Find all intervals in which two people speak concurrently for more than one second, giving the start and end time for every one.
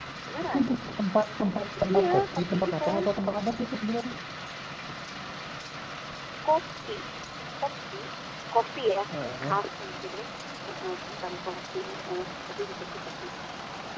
1.8-3.1

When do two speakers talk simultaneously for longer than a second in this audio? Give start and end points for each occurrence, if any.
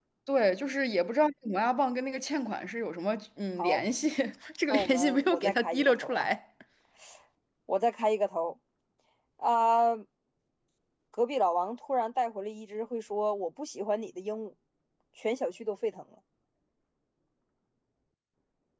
4.7-6.3

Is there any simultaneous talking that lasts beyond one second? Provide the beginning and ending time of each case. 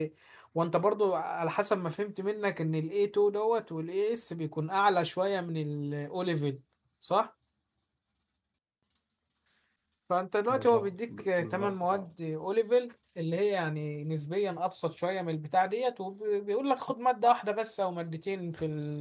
10.5-12.1

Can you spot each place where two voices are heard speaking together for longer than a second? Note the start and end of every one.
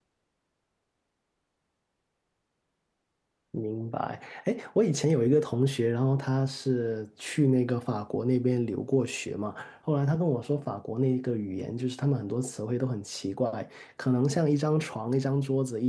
none

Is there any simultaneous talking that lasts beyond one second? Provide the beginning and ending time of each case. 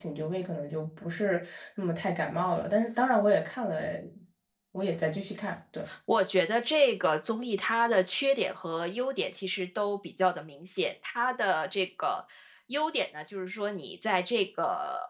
none

